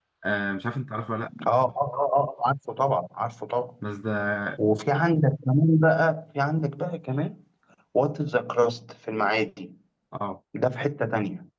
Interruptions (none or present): none